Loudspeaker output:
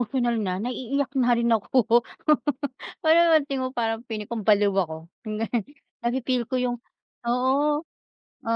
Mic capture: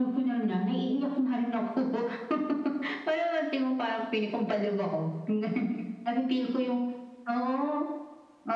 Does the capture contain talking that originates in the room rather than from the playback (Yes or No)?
No